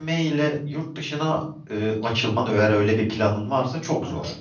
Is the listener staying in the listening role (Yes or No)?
No